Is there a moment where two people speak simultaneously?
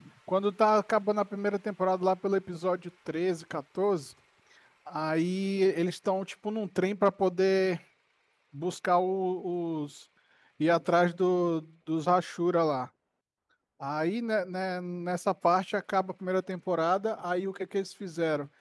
No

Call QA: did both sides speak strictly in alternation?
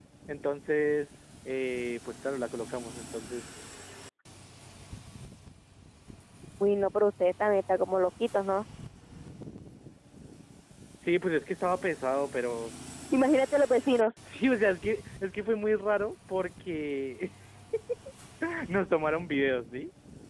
Yes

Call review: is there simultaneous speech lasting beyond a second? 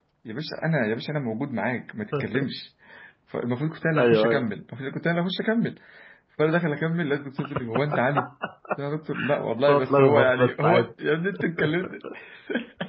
Yes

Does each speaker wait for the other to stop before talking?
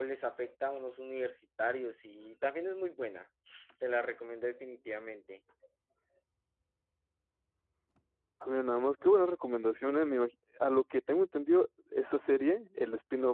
Yes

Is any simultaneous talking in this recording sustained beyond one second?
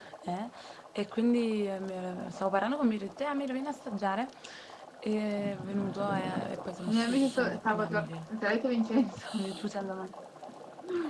Yes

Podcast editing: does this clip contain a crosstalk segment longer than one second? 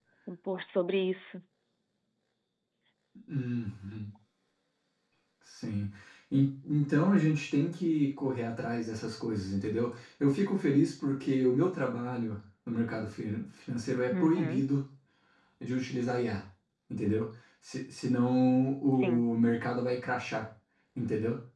No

